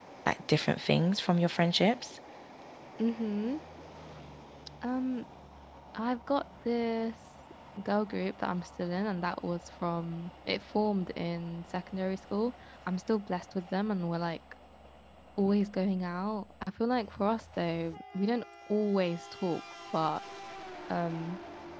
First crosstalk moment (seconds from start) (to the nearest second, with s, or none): none